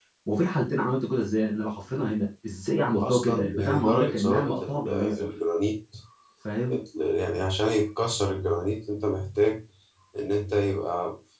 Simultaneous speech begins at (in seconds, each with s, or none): 2.9 s